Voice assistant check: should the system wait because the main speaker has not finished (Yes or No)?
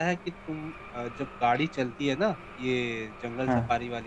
Yes